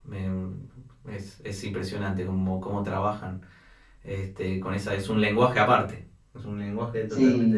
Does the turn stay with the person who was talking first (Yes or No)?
No